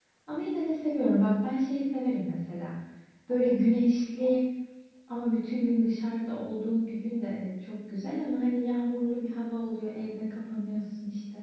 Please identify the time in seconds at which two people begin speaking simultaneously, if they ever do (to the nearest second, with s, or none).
none